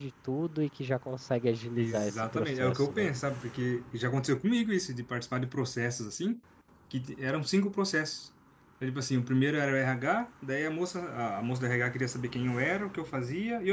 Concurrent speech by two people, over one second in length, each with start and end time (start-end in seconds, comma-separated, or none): 1.8-3.1